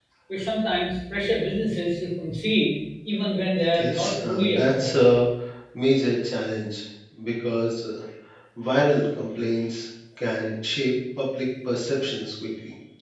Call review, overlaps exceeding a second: present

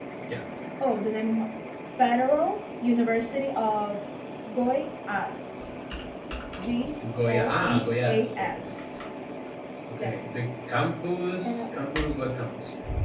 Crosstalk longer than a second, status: present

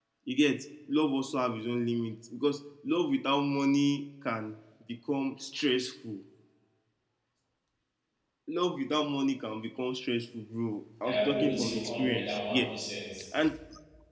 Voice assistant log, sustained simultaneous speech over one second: present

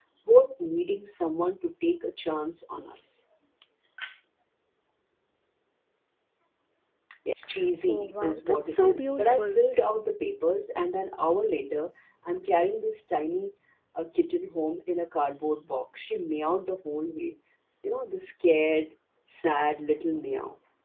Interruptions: present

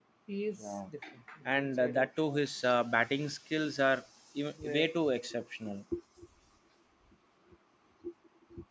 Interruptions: present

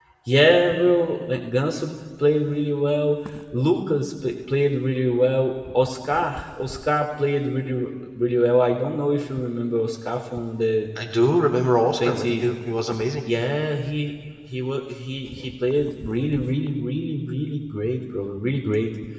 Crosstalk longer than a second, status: none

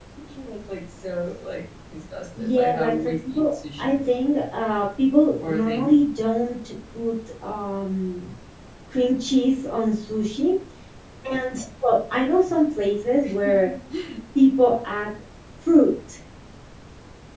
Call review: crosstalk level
present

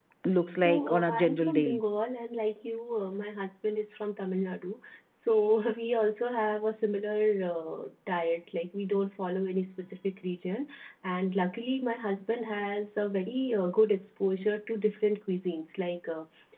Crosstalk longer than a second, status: present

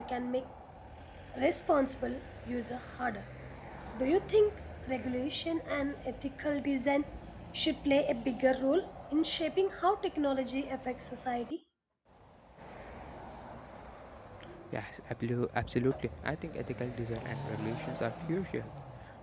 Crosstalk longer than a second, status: none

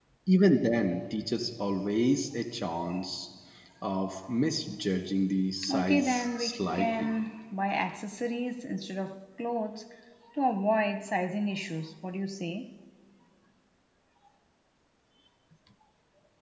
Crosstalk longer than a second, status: present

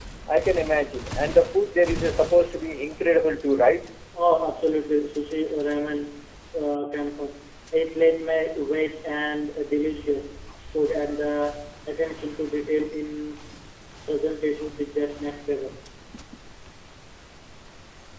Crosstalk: none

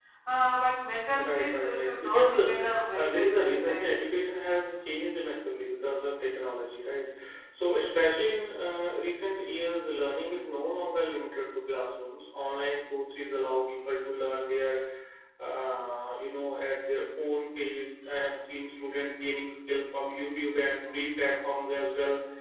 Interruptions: present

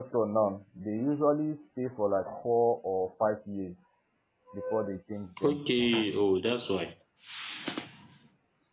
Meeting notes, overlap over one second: none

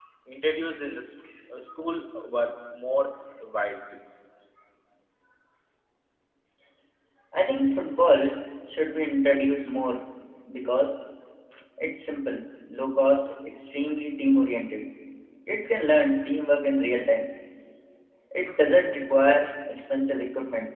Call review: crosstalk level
none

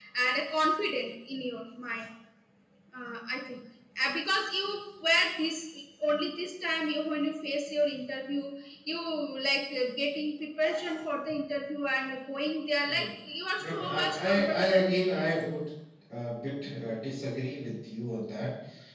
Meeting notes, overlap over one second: present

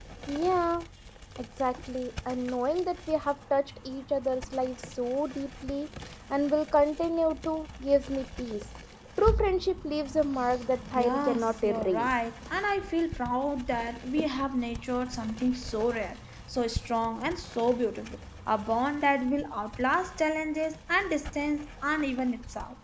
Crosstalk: present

